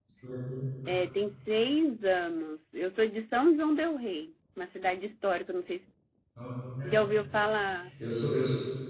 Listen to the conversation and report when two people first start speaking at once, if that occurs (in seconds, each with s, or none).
none